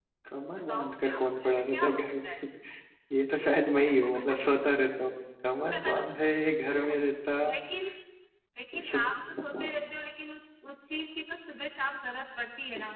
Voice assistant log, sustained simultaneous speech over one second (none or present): present